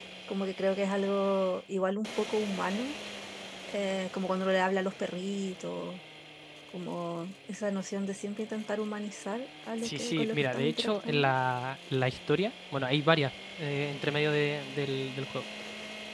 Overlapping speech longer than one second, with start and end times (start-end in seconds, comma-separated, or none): 9.8-11.3